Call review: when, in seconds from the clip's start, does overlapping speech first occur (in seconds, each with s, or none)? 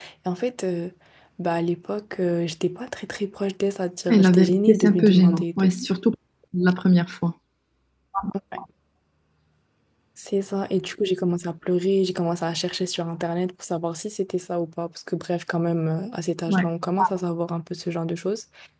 4.1 s